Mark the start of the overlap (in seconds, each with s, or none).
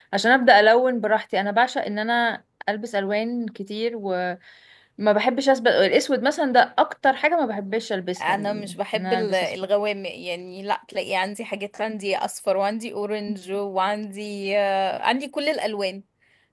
8.2 s